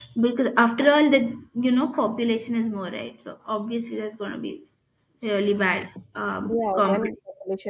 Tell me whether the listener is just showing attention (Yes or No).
No